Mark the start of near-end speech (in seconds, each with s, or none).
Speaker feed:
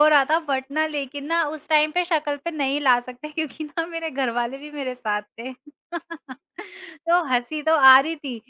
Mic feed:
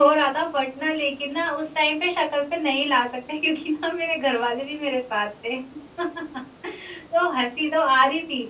none